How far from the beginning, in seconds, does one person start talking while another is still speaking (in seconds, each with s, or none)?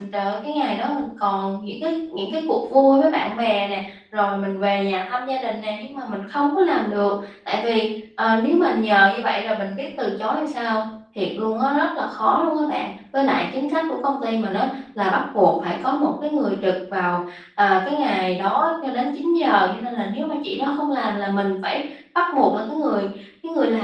none